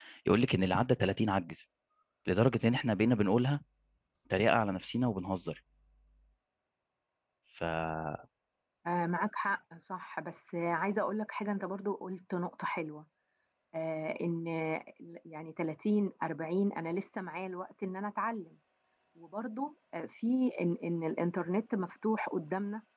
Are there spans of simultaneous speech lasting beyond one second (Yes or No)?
No